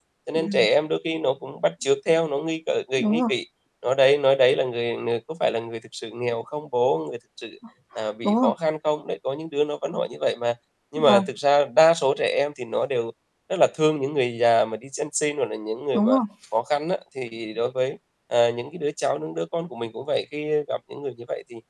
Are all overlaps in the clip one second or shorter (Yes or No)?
Yes